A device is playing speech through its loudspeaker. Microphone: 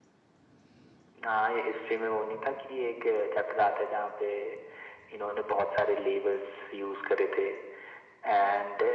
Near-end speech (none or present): none